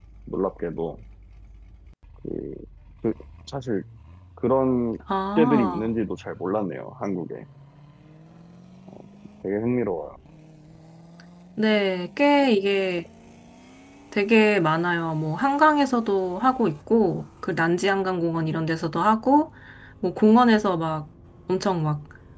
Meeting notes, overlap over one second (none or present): none